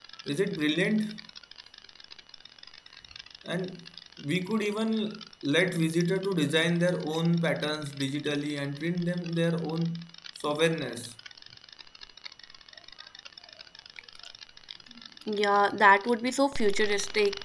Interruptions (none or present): none